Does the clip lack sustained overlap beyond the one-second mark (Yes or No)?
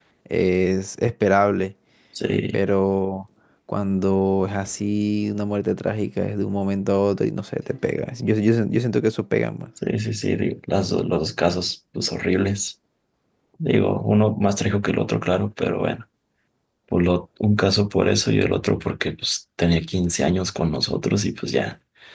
Yes